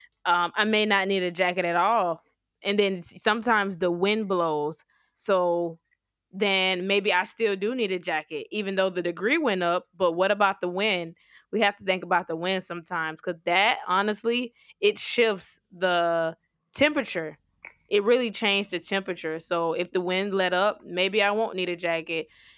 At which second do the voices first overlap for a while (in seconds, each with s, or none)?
none